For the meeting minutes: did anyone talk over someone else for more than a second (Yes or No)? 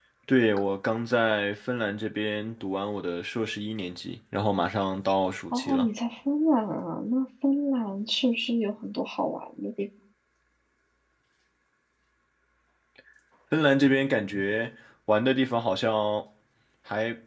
No